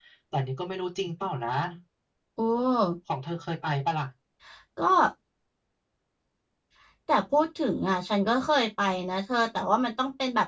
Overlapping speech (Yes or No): No